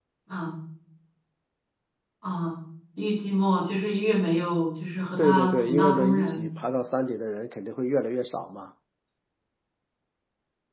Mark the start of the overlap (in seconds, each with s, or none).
5.2 s